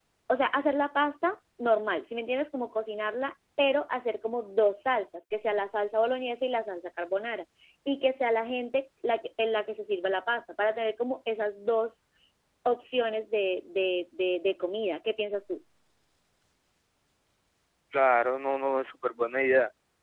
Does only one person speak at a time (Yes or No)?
Yes